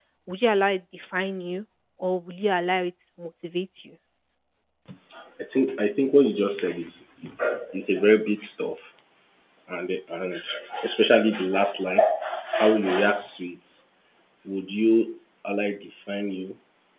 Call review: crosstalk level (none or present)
none